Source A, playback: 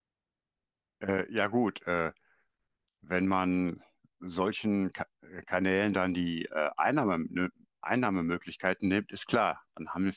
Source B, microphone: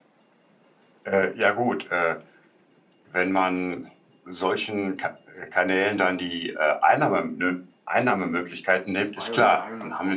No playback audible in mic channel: No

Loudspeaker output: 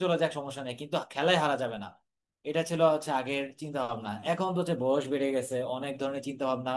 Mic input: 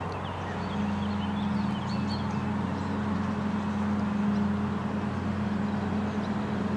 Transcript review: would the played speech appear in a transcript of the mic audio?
No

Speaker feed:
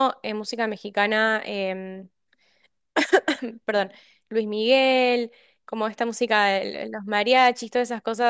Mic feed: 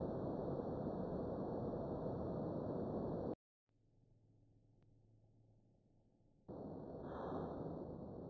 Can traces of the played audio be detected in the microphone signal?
No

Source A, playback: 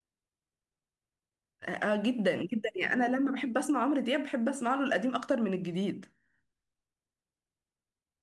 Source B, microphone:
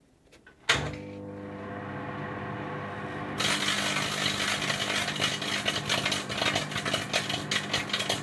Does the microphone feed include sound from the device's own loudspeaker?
No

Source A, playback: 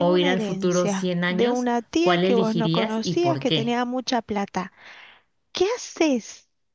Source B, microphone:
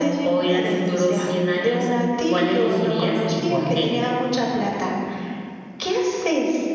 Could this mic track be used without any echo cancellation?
No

